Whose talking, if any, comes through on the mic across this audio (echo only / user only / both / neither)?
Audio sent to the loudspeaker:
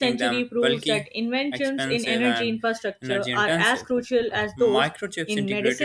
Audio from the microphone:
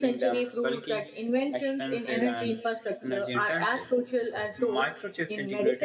echo only